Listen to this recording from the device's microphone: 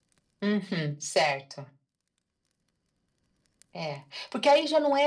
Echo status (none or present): present